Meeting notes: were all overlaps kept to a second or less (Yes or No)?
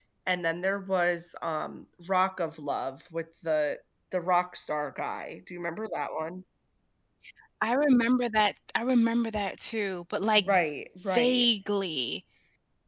Yes